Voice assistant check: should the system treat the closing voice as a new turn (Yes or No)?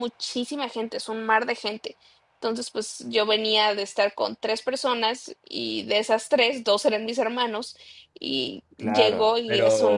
Yes